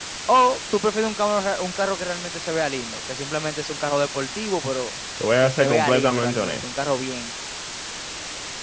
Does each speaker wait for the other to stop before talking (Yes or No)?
No